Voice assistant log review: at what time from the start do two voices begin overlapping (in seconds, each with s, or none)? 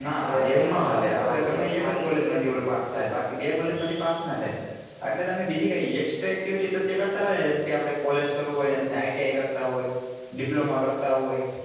0.5 s